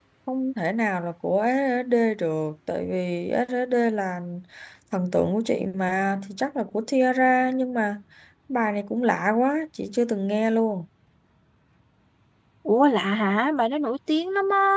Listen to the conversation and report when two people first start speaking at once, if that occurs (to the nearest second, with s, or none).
none